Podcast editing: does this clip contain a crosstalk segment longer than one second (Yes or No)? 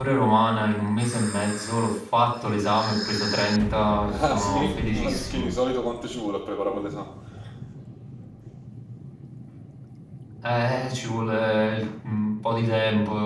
Yes